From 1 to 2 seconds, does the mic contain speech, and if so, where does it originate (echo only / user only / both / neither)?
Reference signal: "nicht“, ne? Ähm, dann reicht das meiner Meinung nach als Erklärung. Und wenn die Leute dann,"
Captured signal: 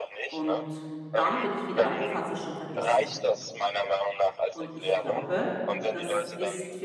both